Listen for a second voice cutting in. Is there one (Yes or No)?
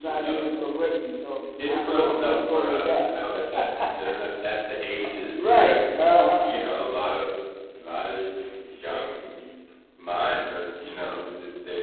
Yes